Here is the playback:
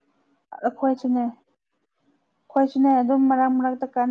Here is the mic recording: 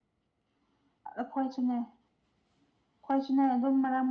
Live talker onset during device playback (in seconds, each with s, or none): none